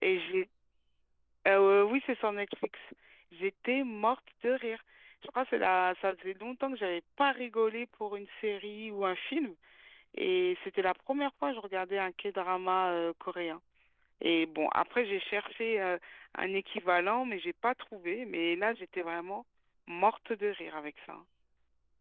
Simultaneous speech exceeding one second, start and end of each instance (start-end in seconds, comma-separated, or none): none